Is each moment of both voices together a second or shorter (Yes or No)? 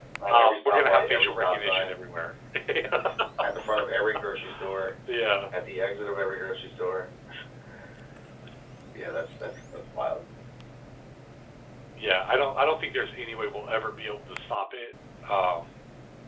No